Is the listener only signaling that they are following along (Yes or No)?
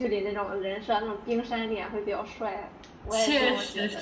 No